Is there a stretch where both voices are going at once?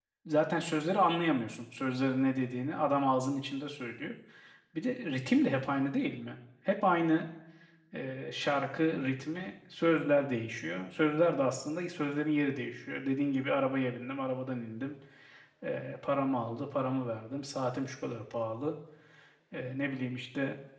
No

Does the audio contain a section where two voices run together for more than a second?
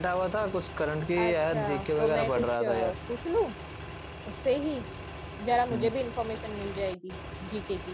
Yes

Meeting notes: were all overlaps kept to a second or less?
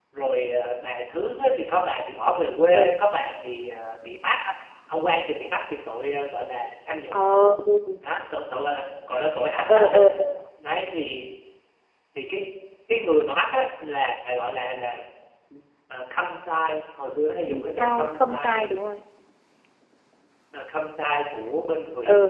No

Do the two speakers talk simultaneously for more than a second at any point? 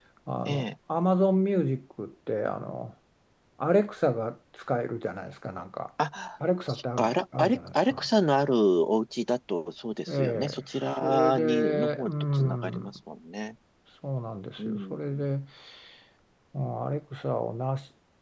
Yes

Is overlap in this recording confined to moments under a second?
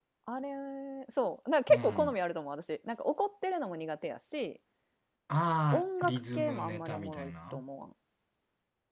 No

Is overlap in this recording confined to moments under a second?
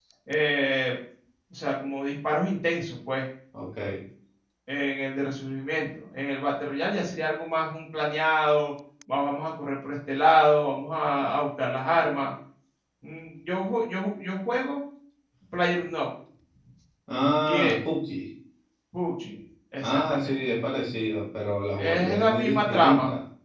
No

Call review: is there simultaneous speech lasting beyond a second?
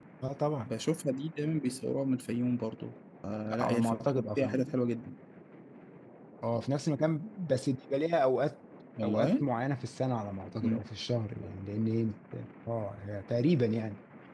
No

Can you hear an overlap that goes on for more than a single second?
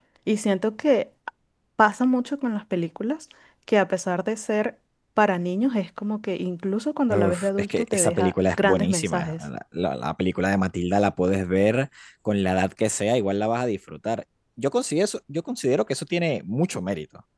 Yes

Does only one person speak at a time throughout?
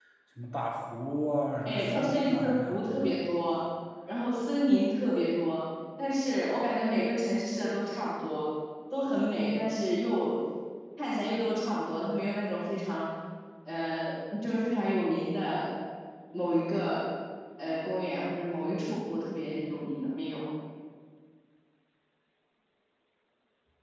No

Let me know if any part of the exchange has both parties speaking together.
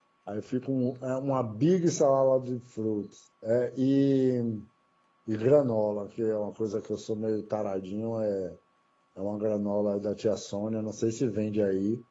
No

